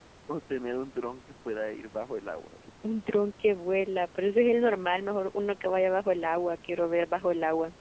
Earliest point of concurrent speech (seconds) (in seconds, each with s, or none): none